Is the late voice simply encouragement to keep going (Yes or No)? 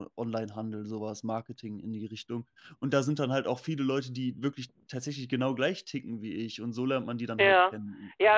No